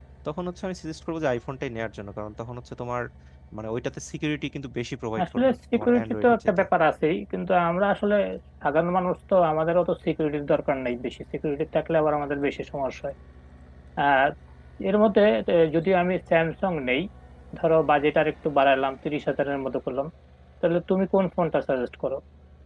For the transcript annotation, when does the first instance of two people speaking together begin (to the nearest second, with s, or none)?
5 s